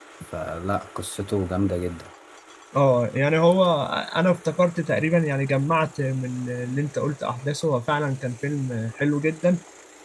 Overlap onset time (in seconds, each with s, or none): none